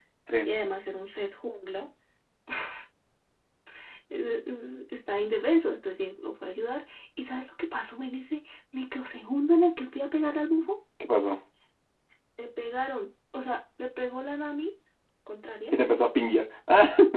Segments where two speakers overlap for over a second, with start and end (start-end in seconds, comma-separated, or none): none